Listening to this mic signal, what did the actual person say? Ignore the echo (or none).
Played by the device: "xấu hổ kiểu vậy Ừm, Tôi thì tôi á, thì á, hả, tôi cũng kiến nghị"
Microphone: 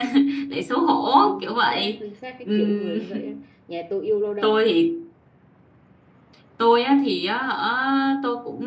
đúng chính xác chính xác cái kiểu người như vậy ấy. nhà tôi yêu lao động